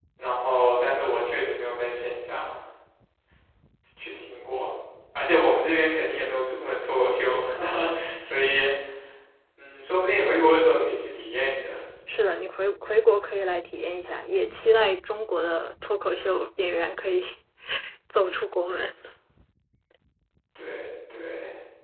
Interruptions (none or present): none